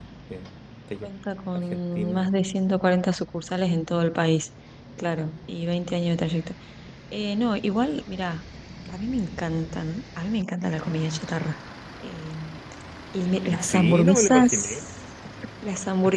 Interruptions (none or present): present